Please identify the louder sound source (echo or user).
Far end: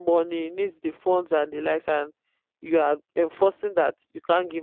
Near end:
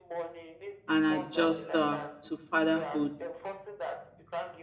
user